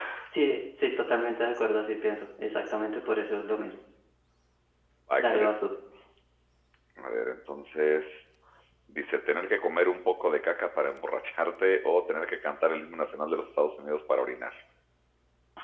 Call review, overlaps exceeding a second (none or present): none